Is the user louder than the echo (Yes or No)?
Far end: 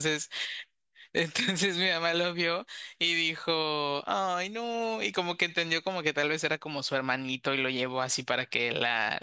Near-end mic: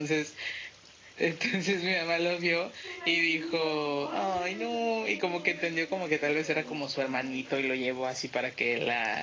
No